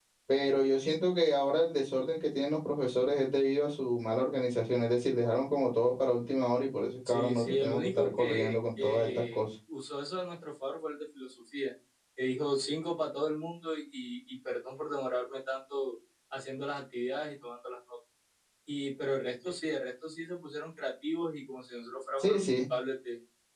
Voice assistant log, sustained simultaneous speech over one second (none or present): present